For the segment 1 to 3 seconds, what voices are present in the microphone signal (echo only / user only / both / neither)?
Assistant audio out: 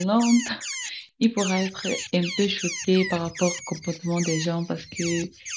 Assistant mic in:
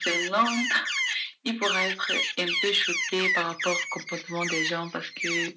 echo only